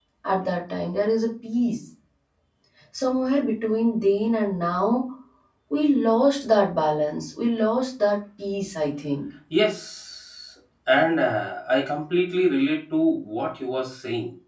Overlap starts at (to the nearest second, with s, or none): none